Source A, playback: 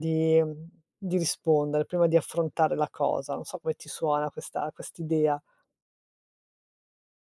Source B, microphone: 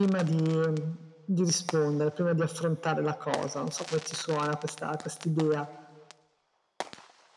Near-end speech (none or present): none